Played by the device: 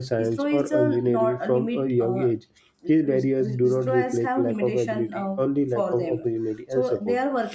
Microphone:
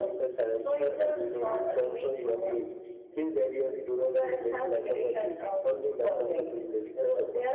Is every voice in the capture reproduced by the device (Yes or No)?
Yes